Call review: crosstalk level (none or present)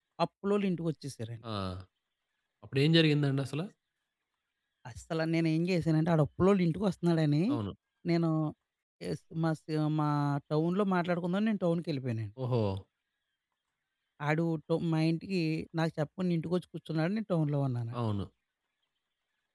none